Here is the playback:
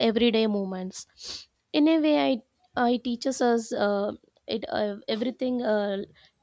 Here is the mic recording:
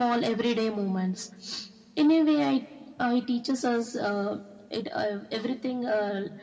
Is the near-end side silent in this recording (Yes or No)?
Yes